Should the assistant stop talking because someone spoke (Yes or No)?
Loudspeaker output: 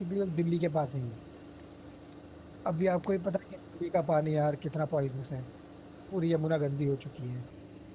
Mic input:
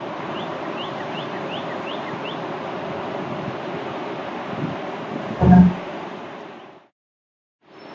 Yes